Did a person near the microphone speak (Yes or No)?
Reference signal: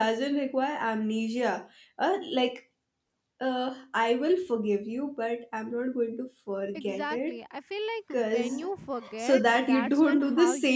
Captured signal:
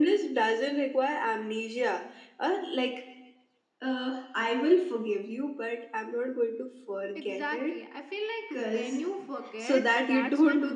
No